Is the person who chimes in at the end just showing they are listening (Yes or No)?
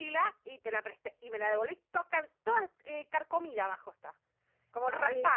No